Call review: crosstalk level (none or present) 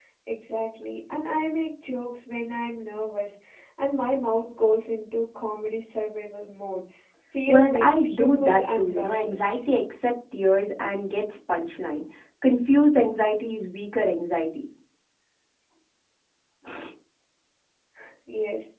present